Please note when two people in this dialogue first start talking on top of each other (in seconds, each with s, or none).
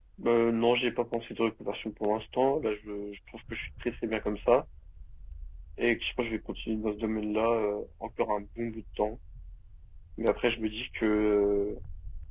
none